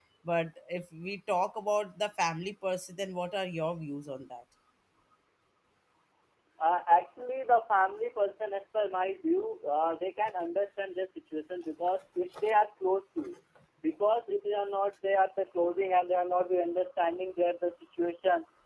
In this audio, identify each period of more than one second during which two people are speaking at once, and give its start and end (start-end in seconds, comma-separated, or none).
none